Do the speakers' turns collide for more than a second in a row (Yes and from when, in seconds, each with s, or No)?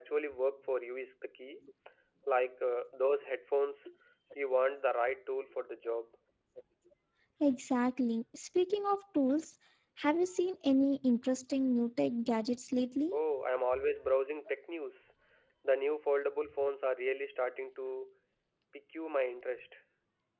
No